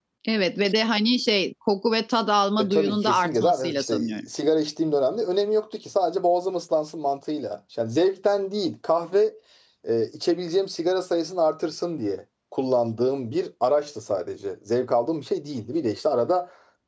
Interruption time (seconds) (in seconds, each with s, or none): 2.6 s